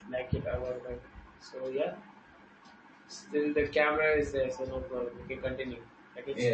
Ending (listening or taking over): taking over